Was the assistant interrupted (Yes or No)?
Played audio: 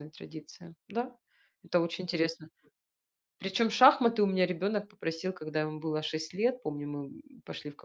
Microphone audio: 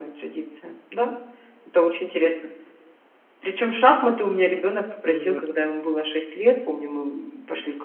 Yes